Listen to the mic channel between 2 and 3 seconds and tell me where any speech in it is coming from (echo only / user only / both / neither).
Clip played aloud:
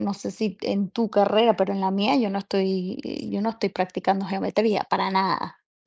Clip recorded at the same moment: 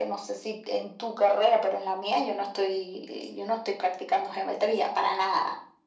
echo only